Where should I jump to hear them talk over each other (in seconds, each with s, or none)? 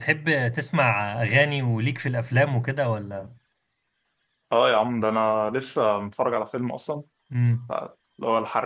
none